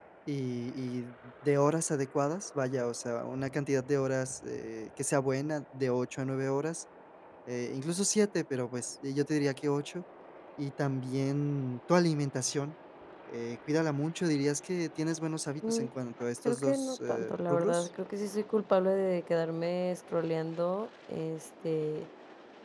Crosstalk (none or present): present